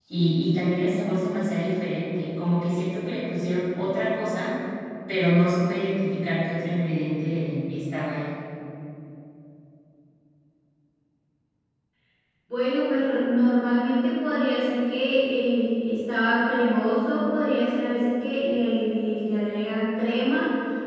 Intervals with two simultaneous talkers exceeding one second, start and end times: none

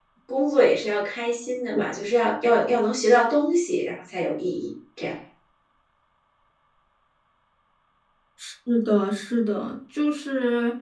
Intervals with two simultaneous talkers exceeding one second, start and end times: none

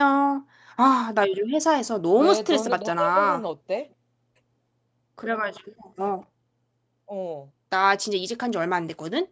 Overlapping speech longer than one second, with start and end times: 2.2-3.4

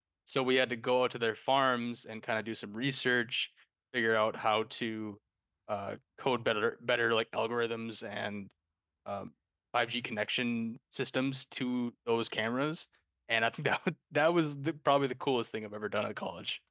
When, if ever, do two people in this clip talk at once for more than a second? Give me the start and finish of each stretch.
none

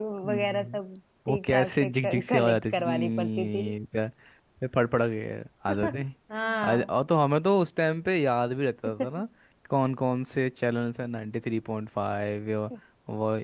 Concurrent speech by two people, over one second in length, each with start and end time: 1.3-3.7

